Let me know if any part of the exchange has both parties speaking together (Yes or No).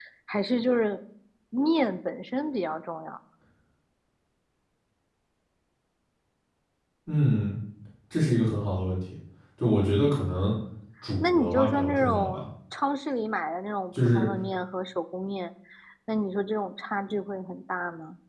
Yes